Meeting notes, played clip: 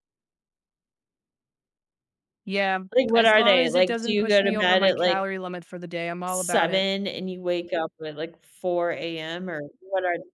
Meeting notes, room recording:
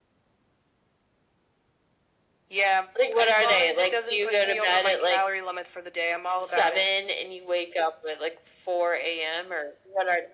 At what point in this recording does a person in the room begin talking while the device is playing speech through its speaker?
none

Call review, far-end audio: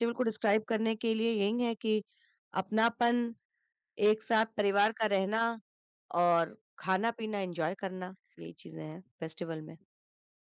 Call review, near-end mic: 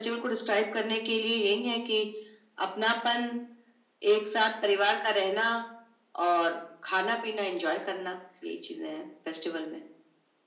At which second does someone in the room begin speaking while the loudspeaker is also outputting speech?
none

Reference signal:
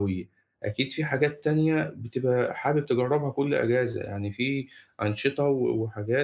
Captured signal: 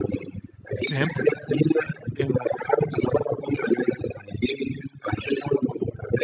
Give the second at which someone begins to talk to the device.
0.9 s

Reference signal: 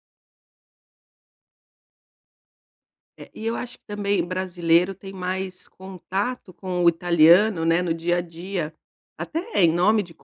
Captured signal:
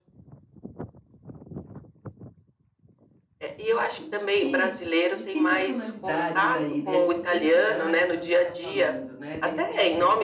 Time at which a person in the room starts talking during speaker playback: 3.6 s

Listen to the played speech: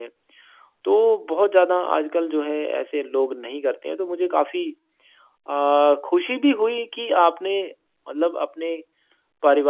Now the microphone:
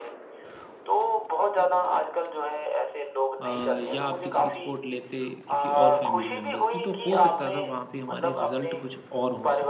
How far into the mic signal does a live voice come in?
3.4 s

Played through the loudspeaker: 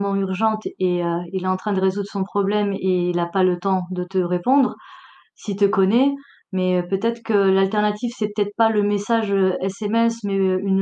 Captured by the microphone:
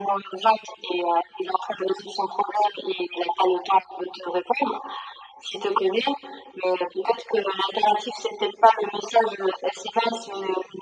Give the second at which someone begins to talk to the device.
none

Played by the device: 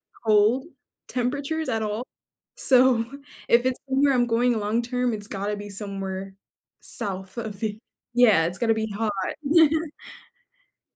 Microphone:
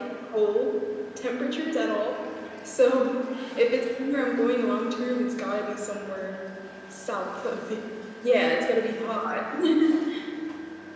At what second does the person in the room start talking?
none

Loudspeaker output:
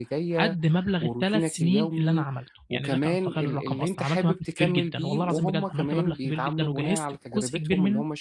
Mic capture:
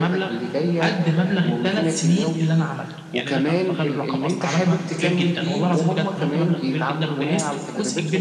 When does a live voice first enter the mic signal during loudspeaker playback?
none

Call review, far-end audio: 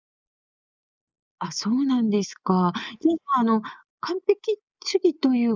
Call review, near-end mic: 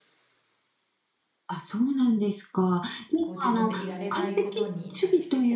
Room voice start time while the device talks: 3.2 s

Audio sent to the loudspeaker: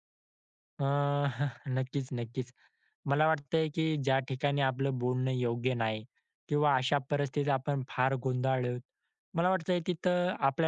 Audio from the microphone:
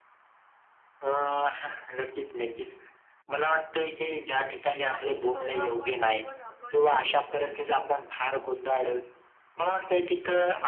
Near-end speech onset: 4.9 s

